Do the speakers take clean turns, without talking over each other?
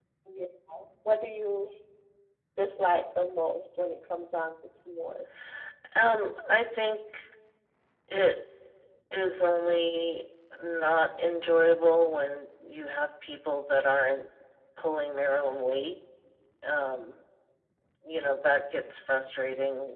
Yes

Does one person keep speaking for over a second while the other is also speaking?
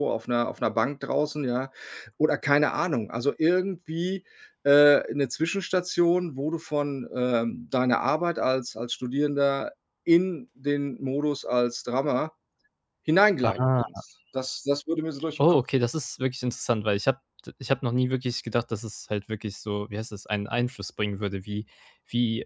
No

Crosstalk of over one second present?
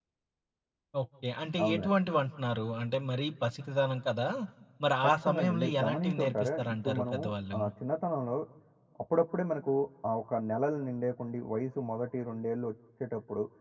Yes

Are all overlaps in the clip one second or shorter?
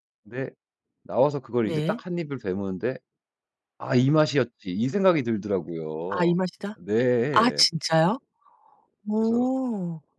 Yes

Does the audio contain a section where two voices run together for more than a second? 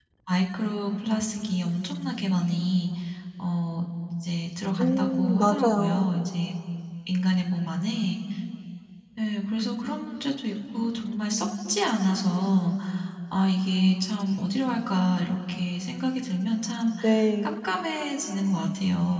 Yes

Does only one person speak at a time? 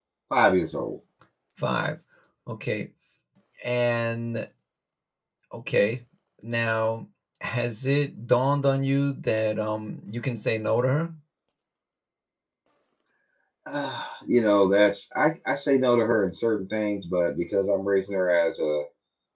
Yes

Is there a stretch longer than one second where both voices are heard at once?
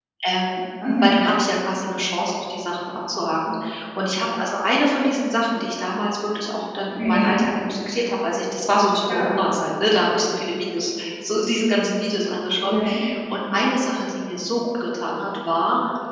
No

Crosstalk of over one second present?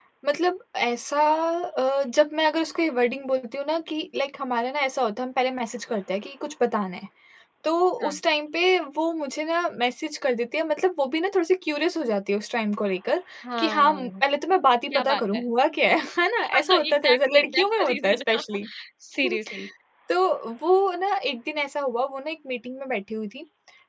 Yes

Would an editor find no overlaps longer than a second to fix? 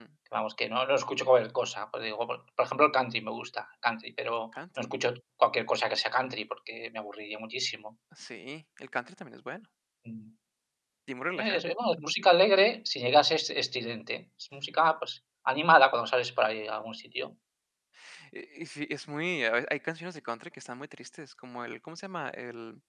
Yes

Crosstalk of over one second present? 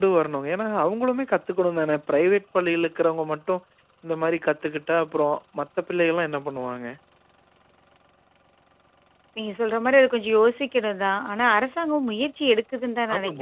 No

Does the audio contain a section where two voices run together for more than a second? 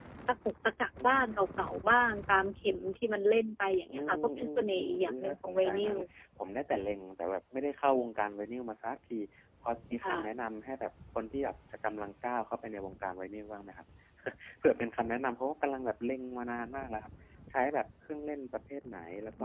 Yes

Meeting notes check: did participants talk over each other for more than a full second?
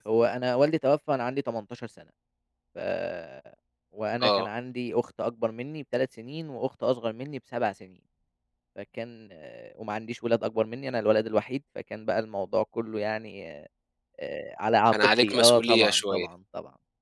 Yes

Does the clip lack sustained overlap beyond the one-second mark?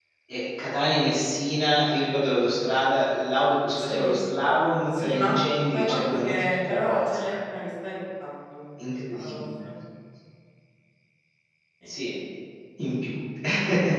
No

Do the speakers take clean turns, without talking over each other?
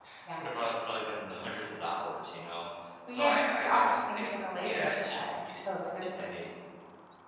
No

